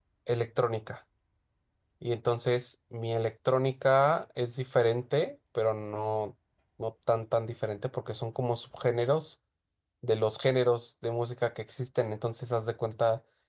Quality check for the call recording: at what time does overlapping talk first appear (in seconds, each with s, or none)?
none